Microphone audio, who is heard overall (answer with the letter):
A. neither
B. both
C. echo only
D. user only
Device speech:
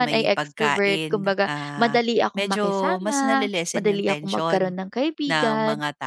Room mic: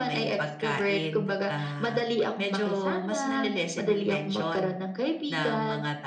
C